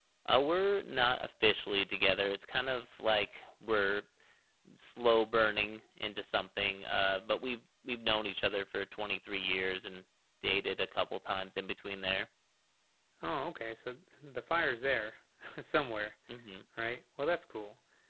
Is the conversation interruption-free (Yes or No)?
Yes